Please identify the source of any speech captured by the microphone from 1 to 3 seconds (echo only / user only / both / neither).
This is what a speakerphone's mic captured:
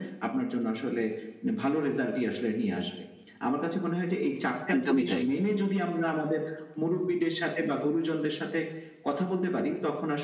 echo only